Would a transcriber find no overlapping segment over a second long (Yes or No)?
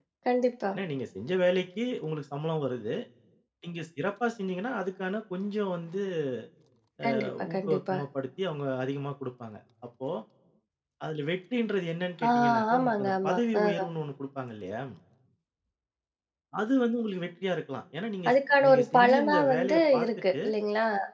No